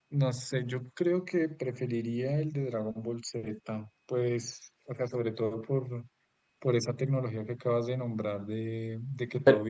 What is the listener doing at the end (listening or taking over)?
listening